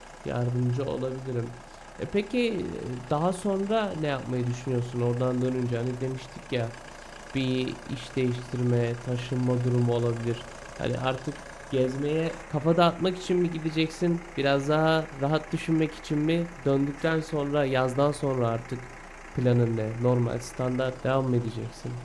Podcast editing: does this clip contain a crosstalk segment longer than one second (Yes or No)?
No